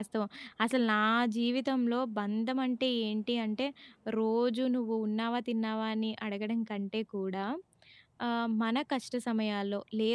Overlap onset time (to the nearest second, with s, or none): none